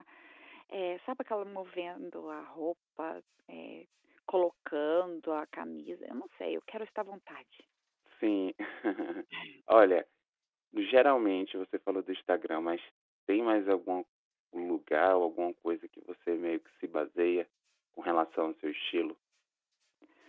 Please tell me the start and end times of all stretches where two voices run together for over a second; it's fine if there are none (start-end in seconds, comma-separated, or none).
none